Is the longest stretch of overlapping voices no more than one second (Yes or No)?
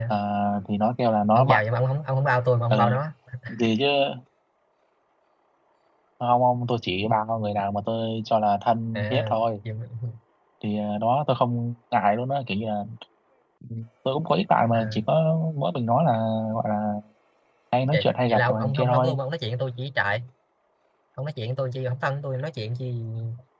No